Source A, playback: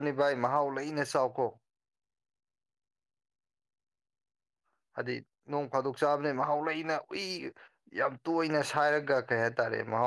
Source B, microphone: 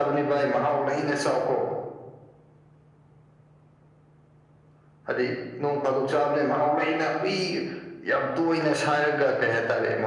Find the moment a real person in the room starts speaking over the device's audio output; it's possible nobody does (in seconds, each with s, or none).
none